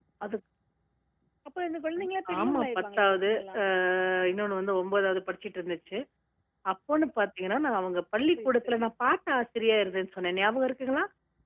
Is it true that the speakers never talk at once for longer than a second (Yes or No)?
No